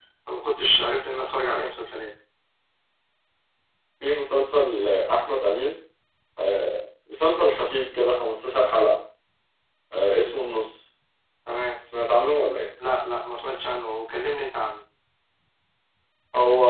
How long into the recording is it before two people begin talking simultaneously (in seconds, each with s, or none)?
none